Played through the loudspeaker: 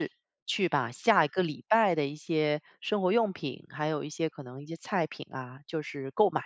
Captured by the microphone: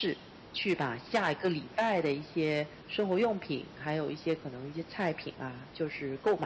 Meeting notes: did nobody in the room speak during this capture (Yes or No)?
Yes